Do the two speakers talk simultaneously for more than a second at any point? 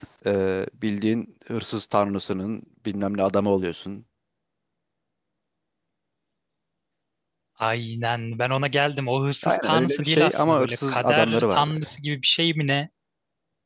Yes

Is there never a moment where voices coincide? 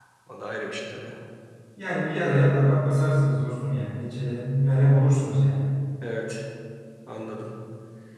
Yes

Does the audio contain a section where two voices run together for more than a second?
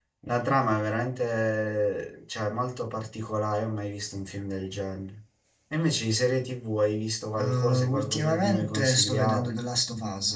Yes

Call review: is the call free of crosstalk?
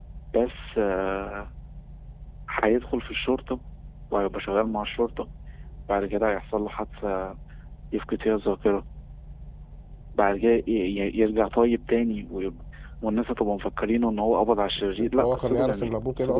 No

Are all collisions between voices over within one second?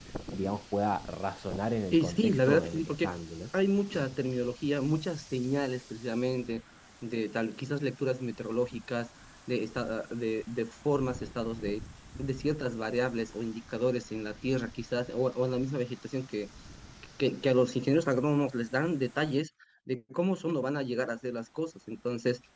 No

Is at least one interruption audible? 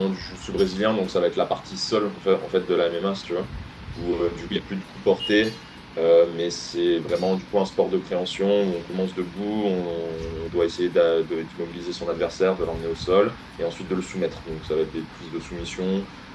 No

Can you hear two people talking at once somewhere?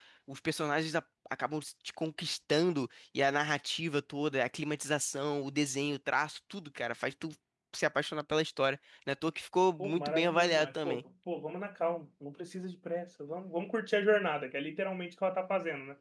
Yes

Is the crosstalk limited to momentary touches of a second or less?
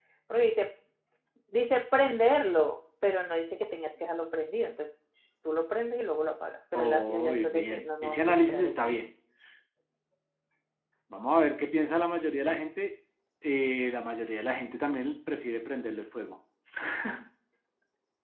No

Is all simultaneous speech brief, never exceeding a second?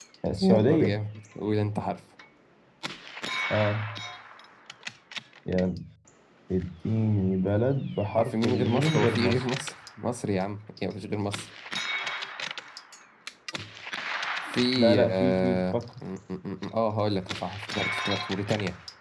No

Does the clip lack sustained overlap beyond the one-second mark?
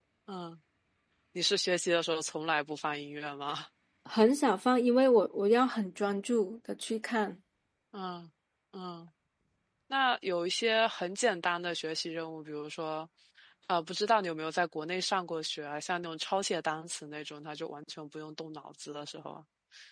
Yes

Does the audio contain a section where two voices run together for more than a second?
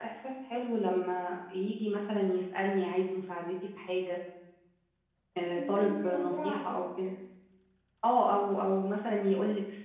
Yes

